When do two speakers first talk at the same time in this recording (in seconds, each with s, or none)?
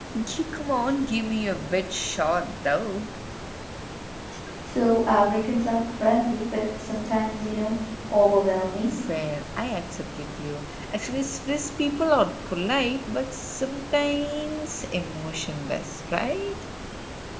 none